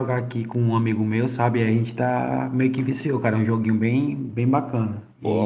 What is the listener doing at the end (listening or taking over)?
taking over